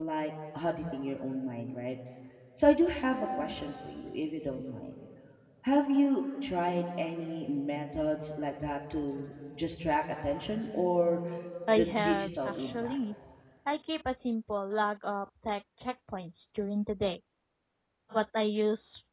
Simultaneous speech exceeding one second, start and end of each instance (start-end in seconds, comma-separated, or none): 11.7-13.0